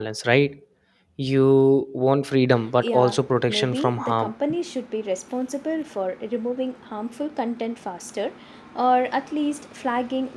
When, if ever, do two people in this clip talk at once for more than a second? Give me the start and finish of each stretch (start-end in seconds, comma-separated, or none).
2.8-4.3